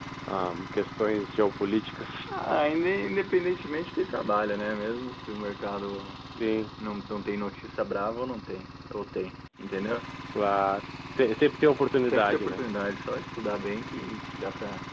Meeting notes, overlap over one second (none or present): none